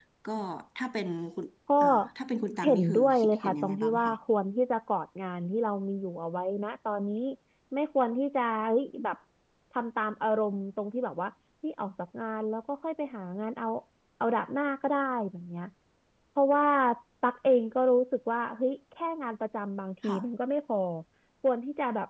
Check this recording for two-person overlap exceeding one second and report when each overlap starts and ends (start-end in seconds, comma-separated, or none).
2.6-4.1